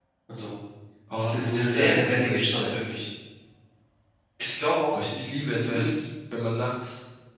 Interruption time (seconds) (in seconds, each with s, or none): 1.2 s